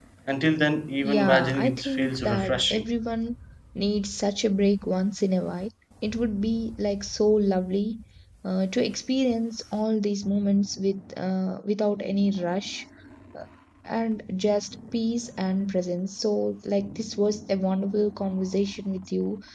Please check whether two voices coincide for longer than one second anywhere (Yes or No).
Yes